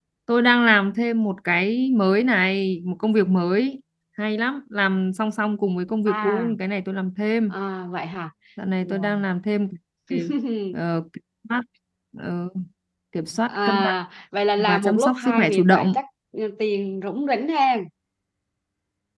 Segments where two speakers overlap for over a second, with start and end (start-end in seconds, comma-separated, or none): 14.6-16.0